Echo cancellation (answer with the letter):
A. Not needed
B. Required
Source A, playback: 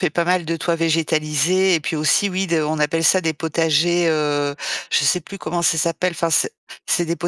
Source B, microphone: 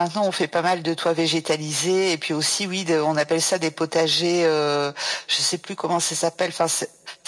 B